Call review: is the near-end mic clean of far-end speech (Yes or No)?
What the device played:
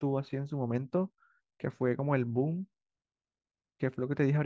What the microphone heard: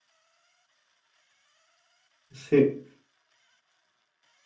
Yes